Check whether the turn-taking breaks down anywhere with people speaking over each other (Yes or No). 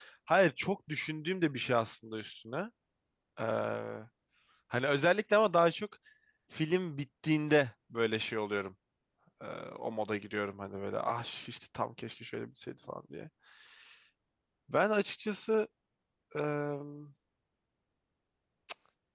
No